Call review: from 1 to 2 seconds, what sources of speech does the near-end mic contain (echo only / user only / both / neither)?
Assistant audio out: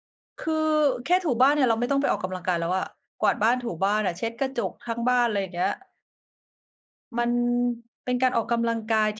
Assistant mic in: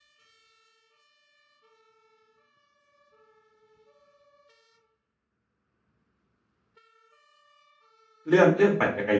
neither